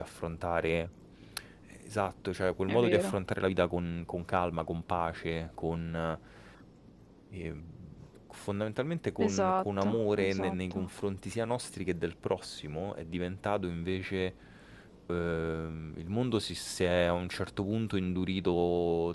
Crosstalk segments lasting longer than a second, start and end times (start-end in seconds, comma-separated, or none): 9.2-10.9